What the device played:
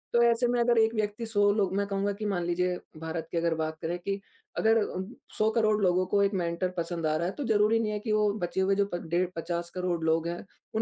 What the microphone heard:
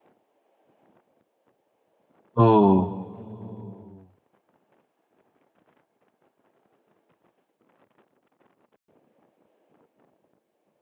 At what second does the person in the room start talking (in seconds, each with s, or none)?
2.4 s